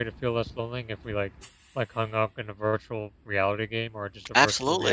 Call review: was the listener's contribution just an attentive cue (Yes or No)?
No